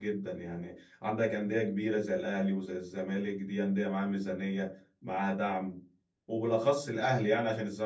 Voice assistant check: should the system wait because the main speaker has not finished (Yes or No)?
Yes